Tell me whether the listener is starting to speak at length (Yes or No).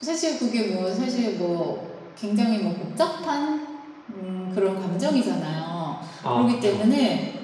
No